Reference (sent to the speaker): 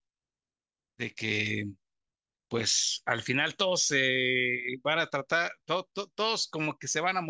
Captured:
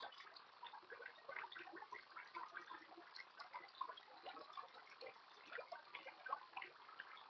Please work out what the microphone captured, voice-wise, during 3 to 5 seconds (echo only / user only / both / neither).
neither